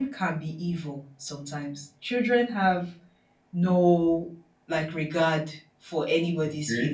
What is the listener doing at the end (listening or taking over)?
listening